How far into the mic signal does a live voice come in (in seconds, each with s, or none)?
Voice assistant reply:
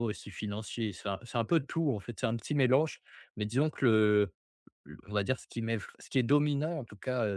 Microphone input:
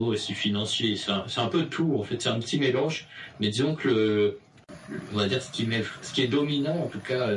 none